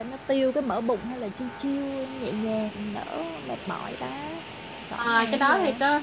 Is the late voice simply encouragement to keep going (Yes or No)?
No